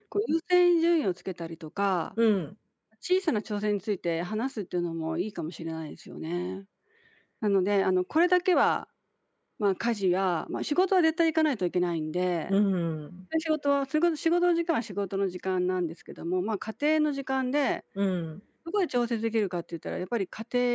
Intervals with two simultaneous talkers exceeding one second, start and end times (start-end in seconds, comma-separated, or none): none